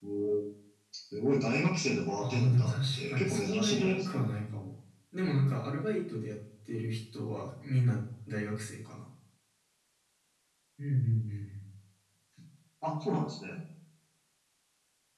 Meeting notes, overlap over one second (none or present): present